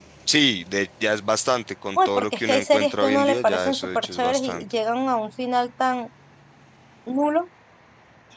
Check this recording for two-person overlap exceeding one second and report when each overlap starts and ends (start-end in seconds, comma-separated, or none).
2.0-4.6